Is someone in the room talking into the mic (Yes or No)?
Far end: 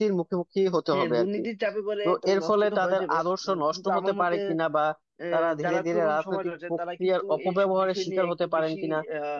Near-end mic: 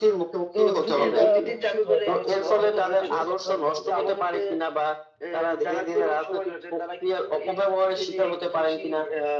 Yes